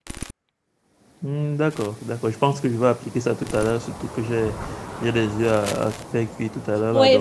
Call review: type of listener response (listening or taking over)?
taking over